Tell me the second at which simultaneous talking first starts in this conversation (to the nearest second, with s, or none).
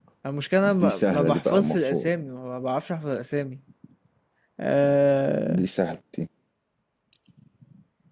1 s